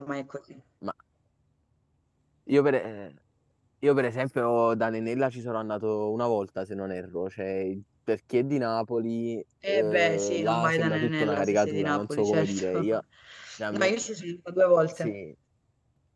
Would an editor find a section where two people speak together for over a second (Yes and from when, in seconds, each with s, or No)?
Yes, from 9.7 s